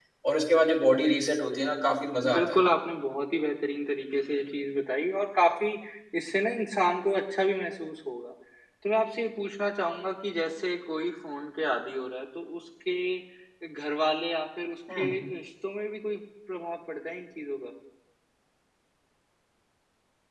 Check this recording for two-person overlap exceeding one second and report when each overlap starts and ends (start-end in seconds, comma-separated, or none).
none